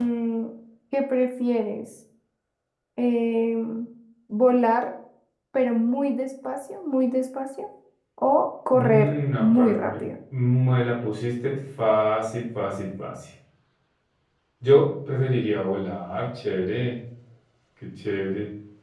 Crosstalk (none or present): present